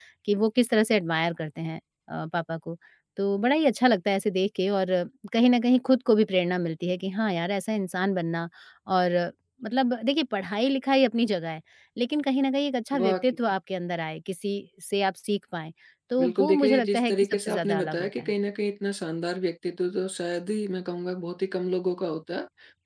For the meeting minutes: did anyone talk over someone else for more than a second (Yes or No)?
Yes